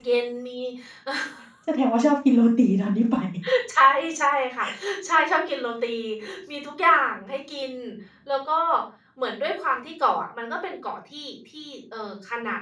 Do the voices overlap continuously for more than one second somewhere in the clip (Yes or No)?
No